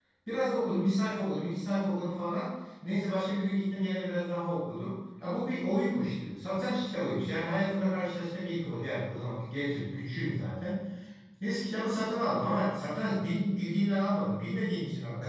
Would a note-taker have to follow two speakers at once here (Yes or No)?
No